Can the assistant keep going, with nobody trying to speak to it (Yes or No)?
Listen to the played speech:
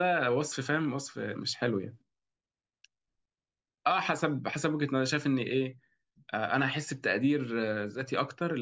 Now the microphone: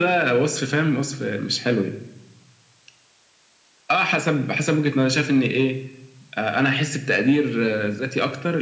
Yes